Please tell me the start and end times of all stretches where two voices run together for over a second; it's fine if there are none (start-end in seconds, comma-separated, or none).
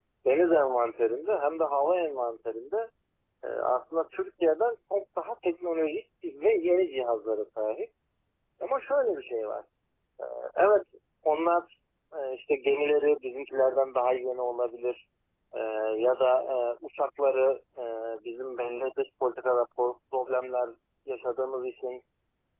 none